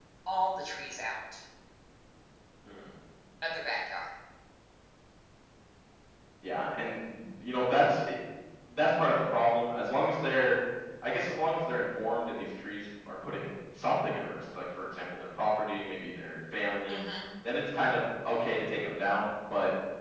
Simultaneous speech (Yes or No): No